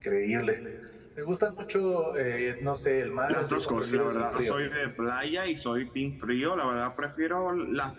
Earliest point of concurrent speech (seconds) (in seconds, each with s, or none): 3.3 s